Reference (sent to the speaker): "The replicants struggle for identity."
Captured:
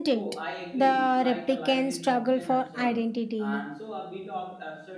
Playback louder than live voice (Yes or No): Yes